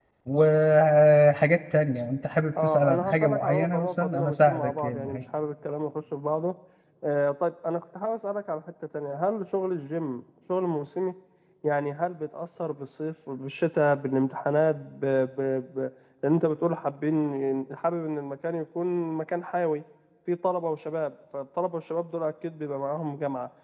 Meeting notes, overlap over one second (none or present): present